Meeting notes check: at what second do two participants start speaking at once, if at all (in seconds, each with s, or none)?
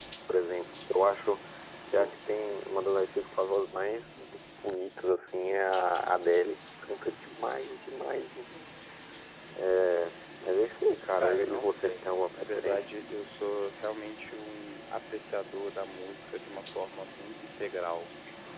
11.1 s